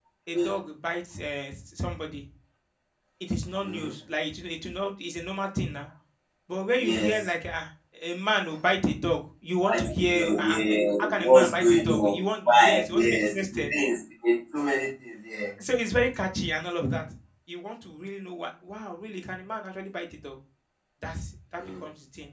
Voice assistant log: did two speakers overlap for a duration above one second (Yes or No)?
Yes